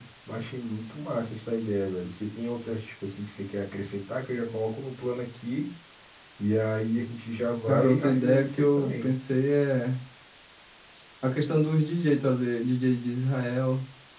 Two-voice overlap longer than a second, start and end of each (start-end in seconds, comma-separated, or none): 7.7-9.1